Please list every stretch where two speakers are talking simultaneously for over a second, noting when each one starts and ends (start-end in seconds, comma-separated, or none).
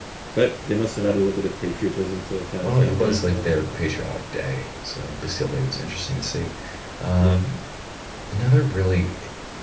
2.6-3.8